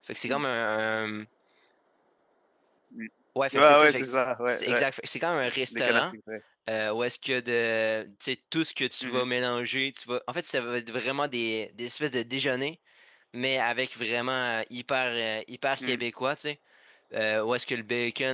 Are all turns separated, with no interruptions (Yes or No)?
No